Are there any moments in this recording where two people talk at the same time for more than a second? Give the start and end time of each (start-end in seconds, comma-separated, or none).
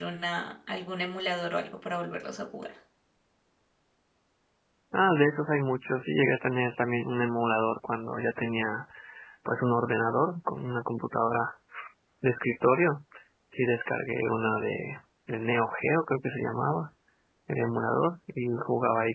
none